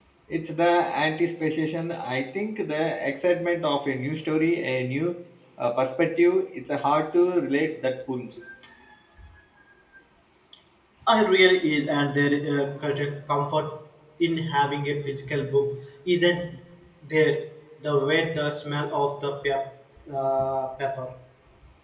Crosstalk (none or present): none